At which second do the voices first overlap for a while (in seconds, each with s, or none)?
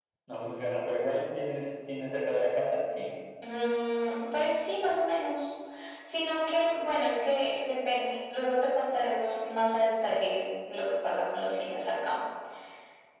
none